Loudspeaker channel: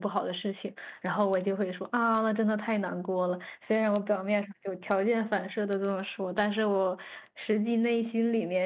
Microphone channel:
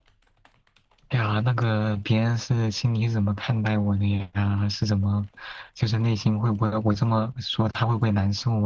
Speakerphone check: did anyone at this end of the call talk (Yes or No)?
Yes